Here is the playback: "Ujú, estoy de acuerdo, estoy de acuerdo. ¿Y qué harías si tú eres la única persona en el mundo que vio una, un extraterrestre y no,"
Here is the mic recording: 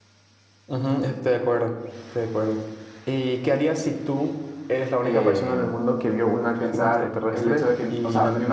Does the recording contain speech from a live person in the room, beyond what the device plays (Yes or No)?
Yes